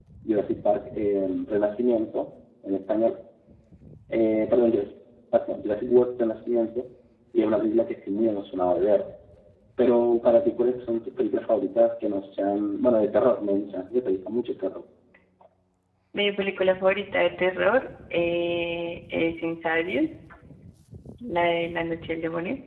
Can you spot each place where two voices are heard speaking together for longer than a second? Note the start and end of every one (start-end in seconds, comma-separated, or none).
none